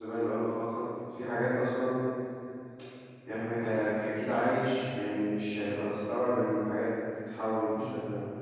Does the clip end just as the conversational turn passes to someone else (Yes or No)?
Yes